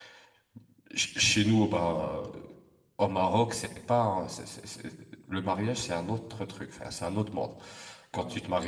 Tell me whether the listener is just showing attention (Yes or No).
Yes